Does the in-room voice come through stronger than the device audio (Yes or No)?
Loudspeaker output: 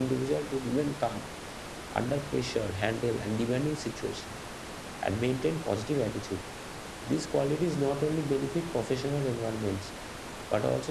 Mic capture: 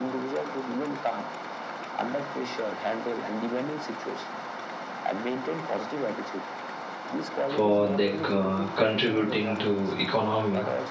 Yes